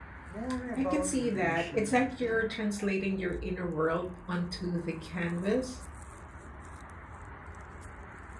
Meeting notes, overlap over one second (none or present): present